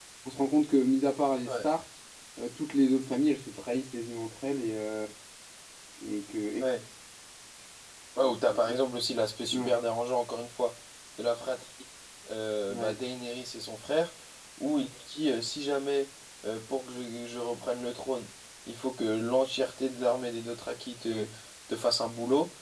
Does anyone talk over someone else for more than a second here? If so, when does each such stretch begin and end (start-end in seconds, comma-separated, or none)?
none